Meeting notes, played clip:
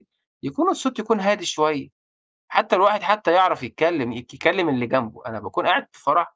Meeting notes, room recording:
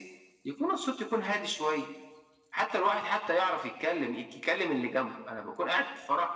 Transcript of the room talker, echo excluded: none

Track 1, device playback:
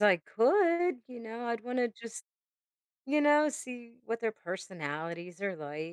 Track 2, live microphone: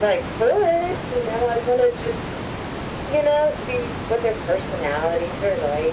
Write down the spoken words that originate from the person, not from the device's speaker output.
none

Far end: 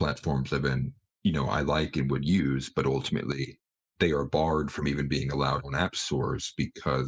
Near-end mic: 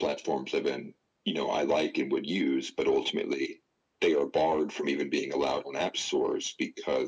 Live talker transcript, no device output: none

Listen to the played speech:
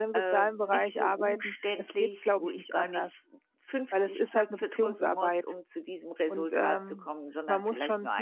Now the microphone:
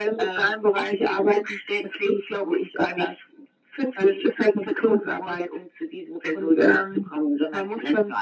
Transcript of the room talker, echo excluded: none

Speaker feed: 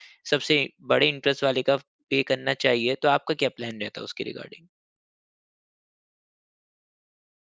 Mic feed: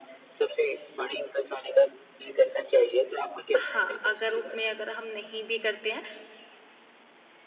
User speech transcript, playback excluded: हाँ, अगर उसमें अगर हम नहीं भी करते हैं,

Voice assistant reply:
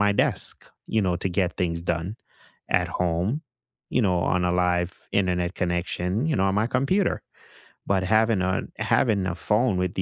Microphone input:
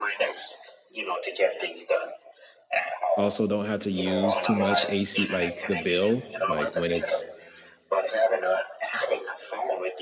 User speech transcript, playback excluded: Also don't have to use too much AC like the bill, like when it's

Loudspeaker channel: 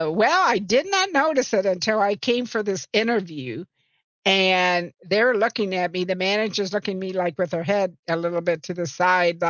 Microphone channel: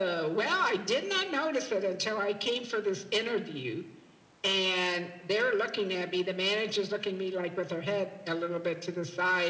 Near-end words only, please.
none

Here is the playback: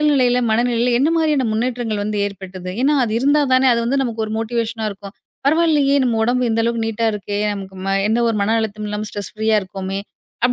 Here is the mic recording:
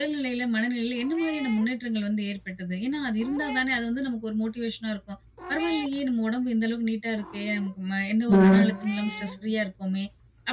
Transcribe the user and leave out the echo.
ம்.

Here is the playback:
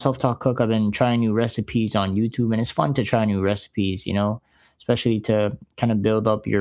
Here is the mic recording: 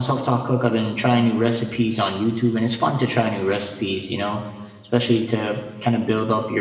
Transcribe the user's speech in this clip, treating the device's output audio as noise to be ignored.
none

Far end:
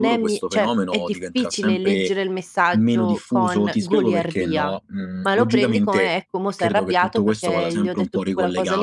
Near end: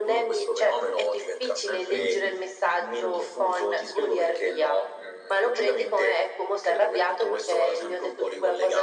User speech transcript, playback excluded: Mh.

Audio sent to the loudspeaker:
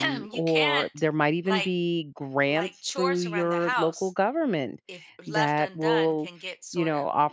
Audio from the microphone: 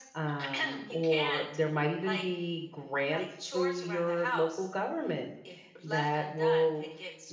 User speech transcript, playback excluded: none

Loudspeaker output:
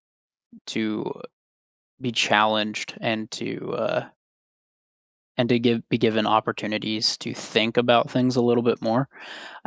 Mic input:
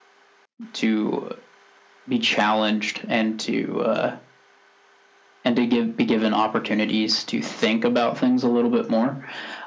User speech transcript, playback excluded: none

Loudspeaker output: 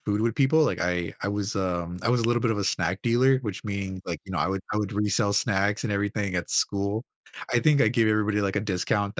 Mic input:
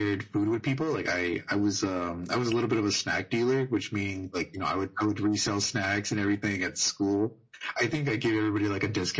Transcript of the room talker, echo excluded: none

